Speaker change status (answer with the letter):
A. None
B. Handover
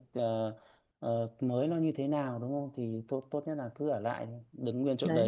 B